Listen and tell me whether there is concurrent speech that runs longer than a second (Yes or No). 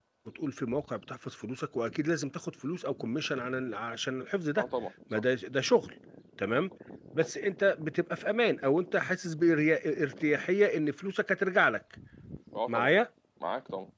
No